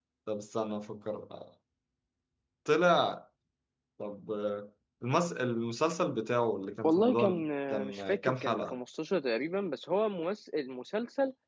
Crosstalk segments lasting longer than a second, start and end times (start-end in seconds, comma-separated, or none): 6.8-8.8